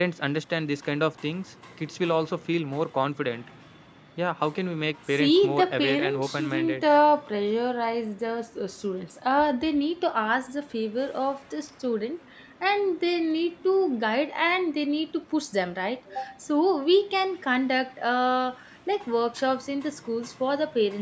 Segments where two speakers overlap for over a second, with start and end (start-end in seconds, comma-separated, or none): 5.2-6.8